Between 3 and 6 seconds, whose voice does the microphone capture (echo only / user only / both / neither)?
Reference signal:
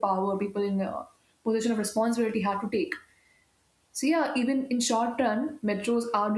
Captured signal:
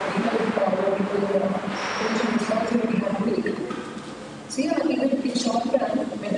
echo only